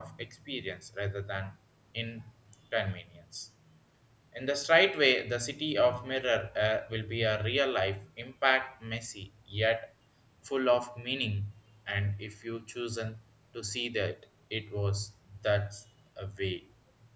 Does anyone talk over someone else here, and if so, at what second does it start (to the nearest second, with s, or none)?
none